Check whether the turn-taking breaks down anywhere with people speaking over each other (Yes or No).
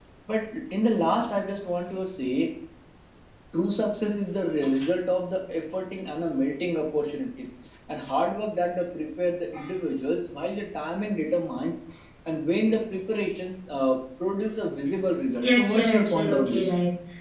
Yes